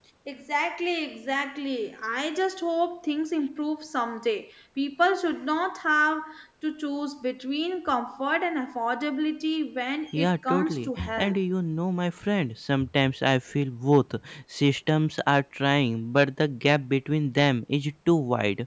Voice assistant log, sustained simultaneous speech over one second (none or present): present